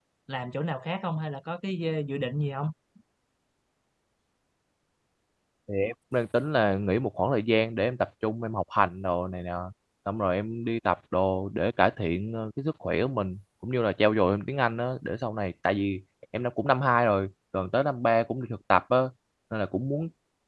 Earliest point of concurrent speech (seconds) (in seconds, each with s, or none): none